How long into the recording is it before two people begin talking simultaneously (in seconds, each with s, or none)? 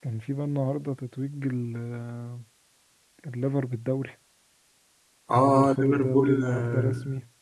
5.3 s